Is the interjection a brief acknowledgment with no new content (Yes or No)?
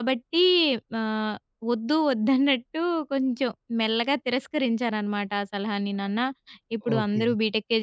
Yes